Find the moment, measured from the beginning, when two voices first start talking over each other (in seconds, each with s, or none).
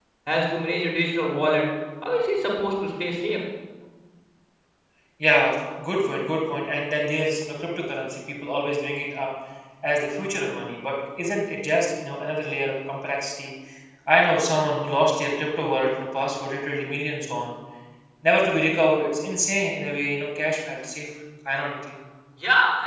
none